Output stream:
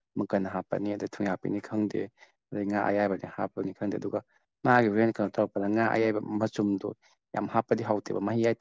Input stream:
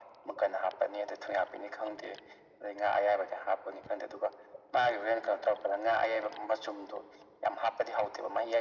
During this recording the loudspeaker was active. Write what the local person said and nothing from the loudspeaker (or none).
none